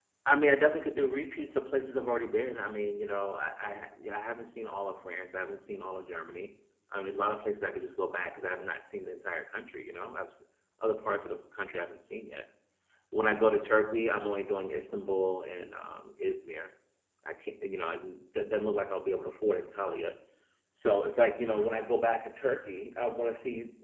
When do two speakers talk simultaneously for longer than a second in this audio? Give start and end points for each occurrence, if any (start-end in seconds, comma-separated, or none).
none